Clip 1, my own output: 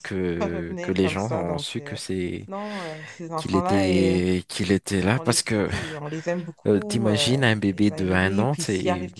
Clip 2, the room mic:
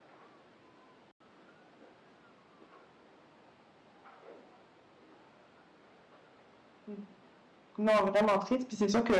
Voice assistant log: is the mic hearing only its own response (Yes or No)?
No